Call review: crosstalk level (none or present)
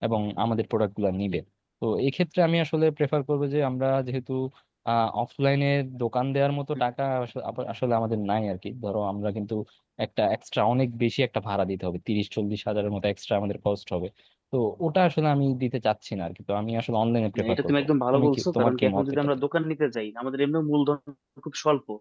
present